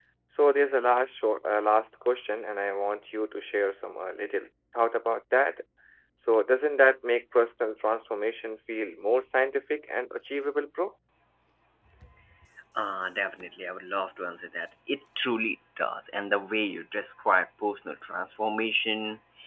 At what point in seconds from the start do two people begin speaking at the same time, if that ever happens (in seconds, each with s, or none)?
none